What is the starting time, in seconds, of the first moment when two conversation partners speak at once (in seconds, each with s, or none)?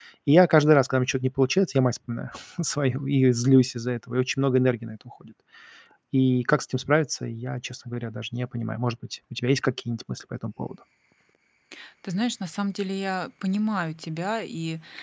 none